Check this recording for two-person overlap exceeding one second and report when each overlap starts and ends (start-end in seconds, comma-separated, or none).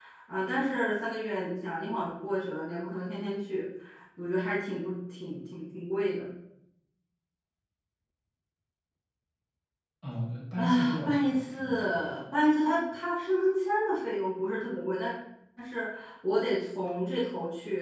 10.6-12.0